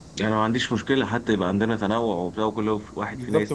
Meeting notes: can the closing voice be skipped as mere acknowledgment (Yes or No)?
No